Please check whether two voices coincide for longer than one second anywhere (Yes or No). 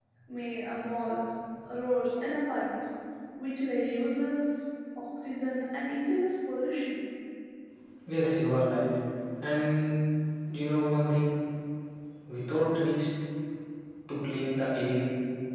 No